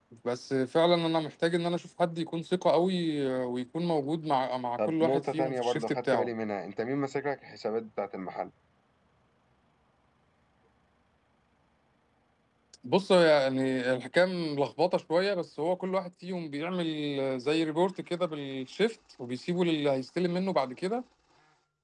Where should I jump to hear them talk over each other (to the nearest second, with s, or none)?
5 s